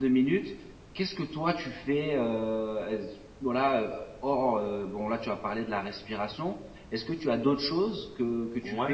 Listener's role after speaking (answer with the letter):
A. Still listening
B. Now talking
B